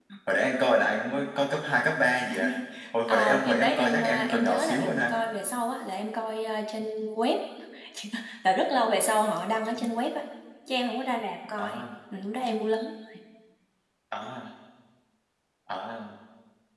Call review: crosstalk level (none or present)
present